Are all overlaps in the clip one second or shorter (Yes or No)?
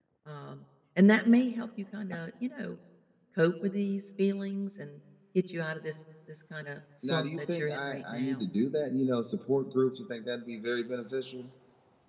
No